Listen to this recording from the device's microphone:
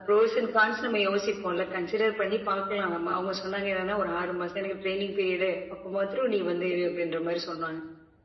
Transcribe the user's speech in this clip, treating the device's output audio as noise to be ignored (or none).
none